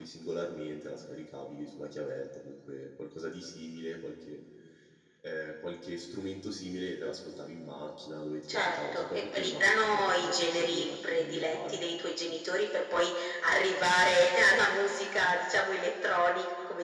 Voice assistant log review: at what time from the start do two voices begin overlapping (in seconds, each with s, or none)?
8.5 s